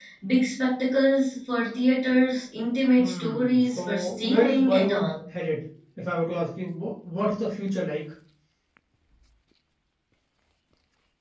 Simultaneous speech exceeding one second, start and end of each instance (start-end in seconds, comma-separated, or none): 3.0-5.1